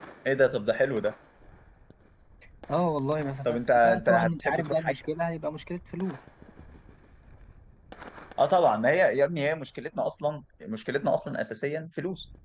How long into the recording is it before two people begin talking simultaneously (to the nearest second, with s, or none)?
3 s